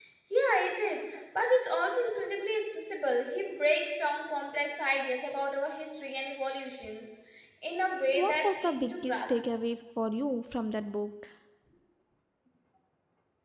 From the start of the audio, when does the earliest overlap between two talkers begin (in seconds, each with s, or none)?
8.1 s